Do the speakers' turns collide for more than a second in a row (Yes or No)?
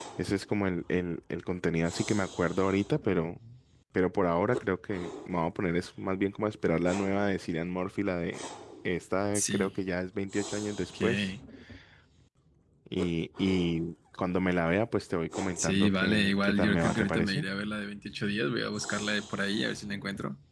Yes